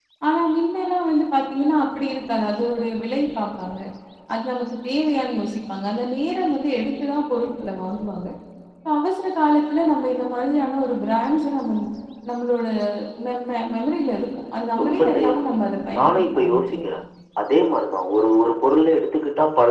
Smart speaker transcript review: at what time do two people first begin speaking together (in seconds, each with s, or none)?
14.8 s